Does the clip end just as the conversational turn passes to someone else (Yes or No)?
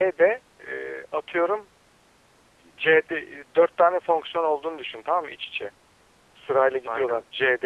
No